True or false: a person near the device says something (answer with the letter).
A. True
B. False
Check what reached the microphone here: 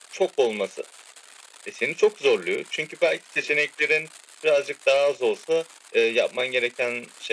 B